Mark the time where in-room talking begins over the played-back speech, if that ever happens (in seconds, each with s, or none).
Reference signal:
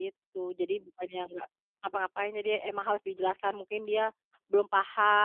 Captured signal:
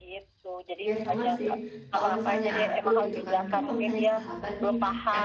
0.8 s